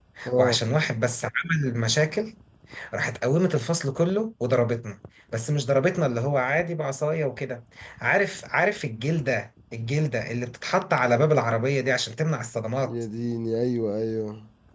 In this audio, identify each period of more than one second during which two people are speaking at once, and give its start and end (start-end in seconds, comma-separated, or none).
none